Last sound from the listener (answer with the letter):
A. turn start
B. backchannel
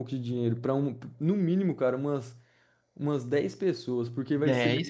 A